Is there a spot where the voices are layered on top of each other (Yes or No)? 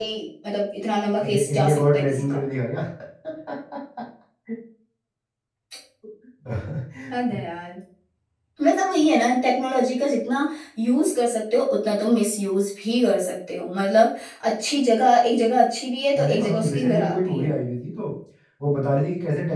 Yes